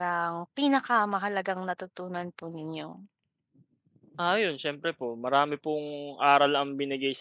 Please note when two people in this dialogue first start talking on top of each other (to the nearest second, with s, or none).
none